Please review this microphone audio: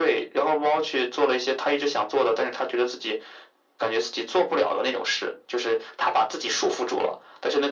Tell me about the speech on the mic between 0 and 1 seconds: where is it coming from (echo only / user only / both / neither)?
echo only